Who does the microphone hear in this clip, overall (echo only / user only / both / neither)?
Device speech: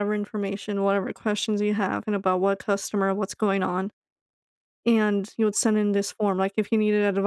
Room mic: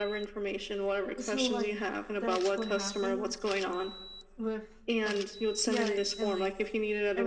both